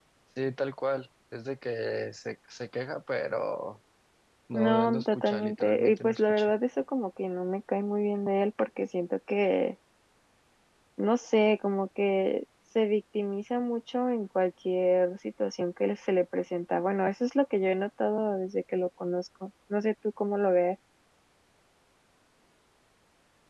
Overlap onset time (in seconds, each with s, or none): 4.5 s